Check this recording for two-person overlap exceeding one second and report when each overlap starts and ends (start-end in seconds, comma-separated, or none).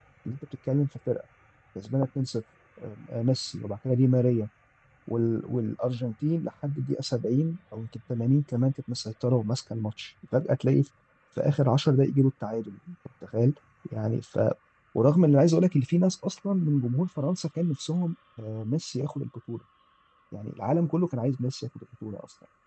none